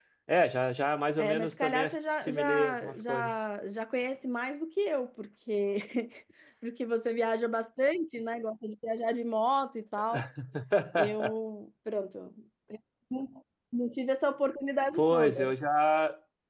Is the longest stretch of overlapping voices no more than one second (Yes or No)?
No